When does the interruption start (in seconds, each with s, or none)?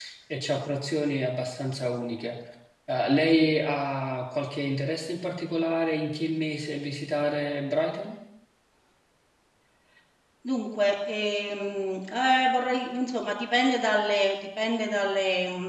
none